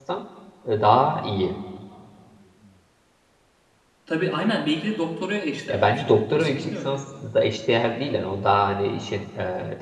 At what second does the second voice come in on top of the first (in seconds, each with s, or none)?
5.7 s